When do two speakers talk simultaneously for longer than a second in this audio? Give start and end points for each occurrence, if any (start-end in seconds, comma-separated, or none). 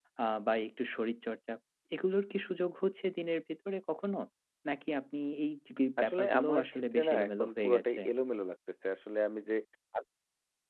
6.0-8.0